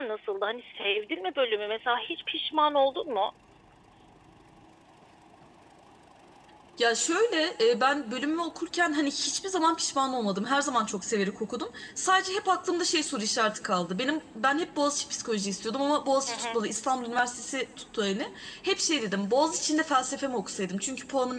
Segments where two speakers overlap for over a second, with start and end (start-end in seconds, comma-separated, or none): none